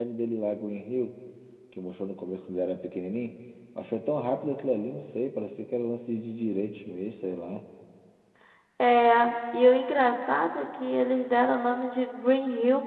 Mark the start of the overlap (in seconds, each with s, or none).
none